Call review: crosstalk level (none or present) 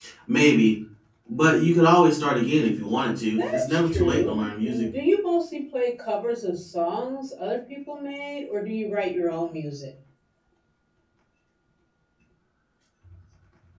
present